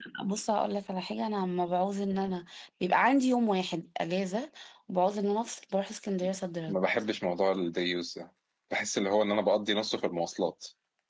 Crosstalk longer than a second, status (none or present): none